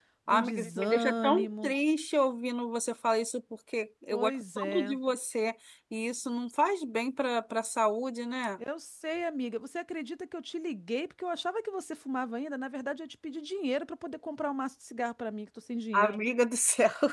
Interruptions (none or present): present